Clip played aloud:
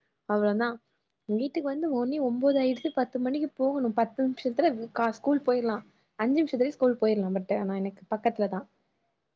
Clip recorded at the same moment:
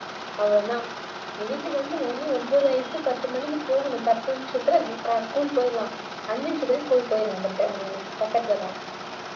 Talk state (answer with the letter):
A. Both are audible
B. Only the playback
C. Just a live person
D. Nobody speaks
B